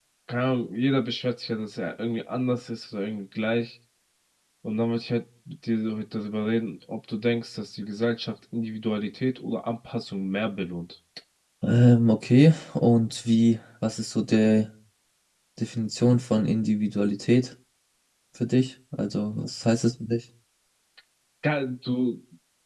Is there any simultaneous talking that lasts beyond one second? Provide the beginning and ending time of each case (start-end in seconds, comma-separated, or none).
none